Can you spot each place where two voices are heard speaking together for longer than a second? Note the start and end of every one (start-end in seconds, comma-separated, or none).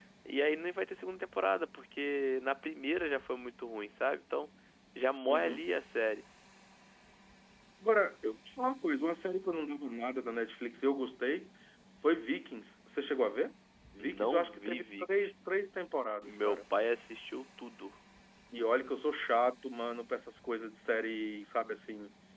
14.0-15.3